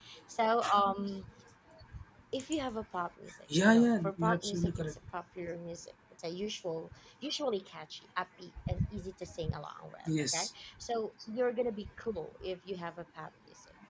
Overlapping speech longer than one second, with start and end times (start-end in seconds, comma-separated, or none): 3.7-5.0